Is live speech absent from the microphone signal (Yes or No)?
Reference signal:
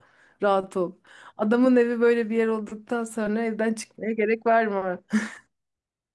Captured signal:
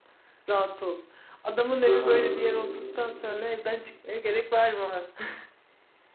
No